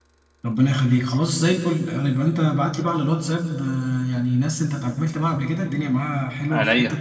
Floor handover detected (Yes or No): No